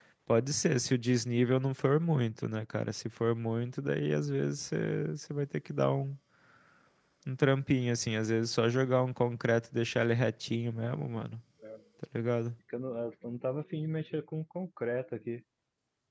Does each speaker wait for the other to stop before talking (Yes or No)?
Yes